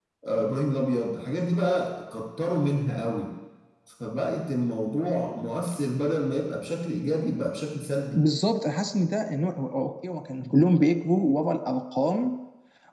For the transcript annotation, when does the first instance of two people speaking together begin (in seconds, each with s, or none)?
none